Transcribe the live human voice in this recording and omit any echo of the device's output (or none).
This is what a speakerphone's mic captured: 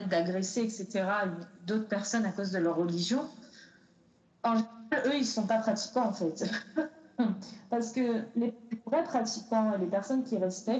none